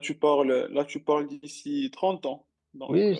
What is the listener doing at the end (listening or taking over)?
taking over